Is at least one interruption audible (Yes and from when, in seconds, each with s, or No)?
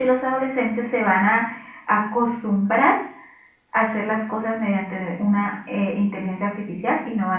No